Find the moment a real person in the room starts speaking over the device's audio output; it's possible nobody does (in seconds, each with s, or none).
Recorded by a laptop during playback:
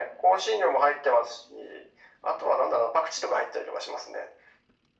none